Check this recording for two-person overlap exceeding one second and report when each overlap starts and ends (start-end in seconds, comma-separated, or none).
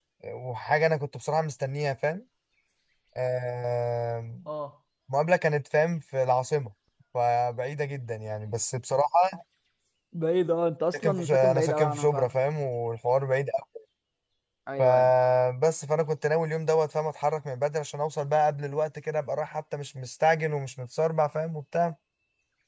10.9-12.3